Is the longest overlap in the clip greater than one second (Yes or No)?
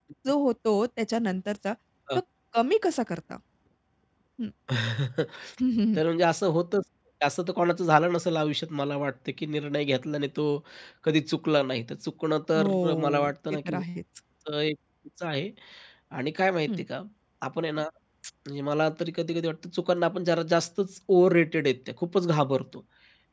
Yes